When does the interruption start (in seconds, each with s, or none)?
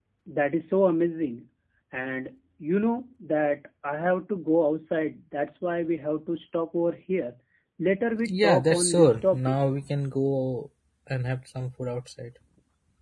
8.3 s